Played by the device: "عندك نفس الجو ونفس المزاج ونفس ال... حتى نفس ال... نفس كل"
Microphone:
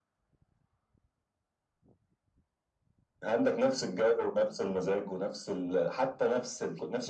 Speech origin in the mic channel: echo only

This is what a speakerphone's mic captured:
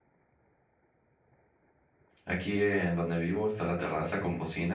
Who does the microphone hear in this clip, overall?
user only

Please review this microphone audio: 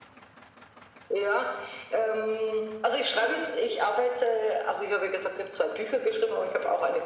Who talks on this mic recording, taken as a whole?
echo only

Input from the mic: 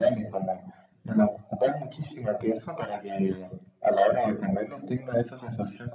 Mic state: echo only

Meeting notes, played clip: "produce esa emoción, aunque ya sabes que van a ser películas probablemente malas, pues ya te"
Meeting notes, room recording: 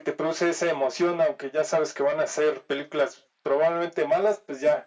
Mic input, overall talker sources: echo only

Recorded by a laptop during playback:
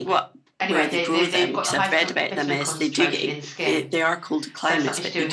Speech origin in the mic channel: both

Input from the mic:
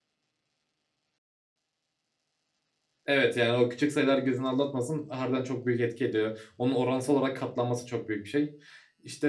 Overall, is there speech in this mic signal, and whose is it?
user only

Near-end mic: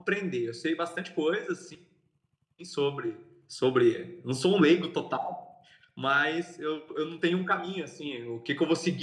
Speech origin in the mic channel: user only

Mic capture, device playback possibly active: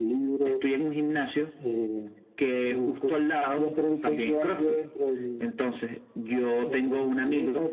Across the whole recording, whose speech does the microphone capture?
echo only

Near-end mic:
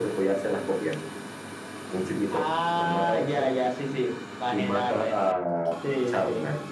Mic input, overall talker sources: echo only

